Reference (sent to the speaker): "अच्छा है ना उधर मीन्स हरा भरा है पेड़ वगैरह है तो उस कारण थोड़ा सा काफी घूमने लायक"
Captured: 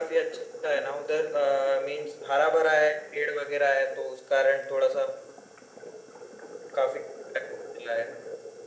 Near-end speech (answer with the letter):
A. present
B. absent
B